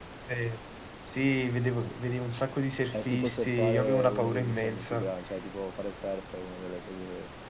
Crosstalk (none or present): present